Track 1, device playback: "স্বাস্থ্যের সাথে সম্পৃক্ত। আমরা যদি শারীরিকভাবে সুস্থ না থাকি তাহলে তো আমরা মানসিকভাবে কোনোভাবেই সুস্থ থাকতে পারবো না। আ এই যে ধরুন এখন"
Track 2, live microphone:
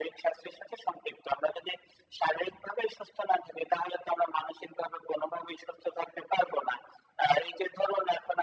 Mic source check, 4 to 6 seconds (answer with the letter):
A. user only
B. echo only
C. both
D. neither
B